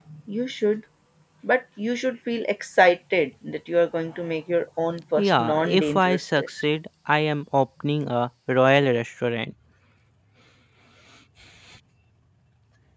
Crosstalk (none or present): present